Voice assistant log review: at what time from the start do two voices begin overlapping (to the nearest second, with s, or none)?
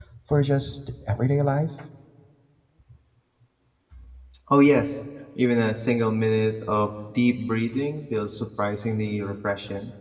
none